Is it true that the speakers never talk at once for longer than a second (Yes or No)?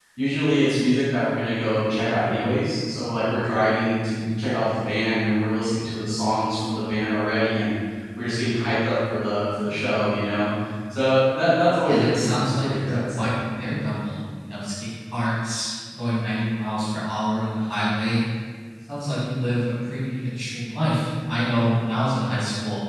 No